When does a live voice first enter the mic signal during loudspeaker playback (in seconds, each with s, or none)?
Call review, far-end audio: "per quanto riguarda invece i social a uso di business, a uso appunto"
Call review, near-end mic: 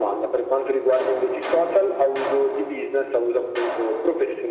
none